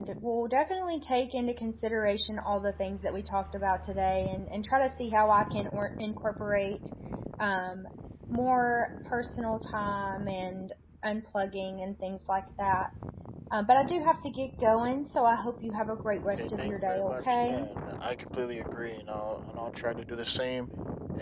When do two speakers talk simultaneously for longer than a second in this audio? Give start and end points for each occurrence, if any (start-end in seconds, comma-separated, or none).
16.4-17.6